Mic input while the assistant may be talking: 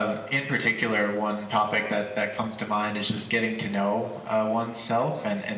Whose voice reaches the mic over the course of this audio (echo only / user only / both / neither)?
echo only